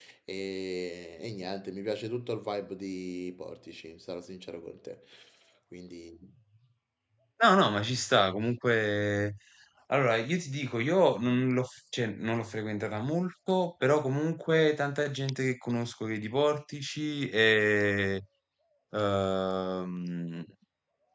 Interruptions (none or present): none